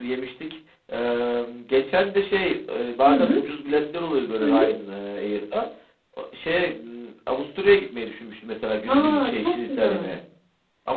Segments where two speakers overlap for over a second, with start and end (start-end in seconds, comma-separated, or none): 8.9-10.1